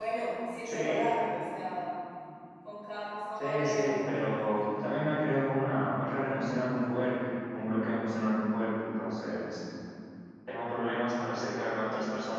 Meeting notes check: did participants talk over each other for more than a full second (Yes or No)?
Yes